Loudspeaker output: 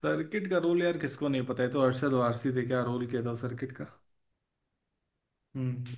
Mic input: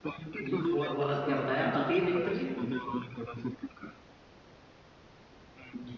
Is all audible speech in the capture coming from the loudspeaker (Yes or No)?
No